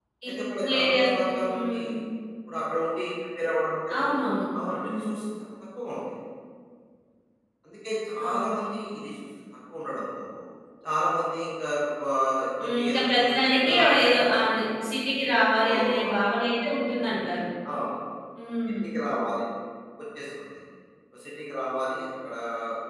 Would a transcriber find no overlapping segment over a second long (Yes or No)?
No